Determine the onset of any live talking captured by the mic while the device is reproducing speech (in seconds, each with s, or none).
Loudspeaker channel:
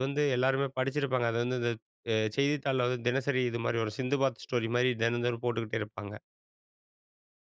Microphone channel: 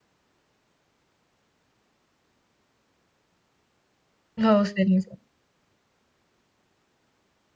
4.4 s